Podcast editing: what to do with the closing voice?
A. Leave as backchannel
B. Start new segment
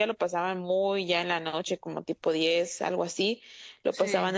A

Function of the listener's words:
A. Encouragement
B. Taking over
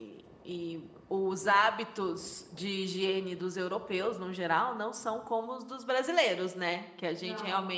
A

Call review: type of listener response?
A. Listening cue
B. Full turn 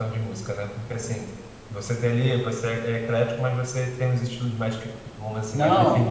B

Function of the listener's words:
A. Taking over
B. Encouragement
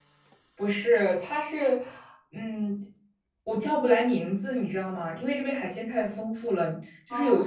B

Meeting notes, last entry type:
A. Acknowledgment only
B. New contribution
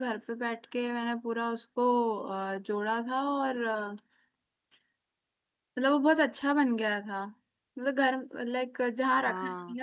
A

